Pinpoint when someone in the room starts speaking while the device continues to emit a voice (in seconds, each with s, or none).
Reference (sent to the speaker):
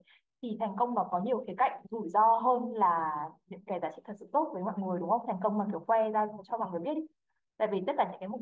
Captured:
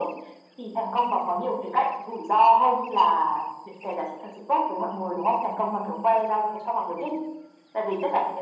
none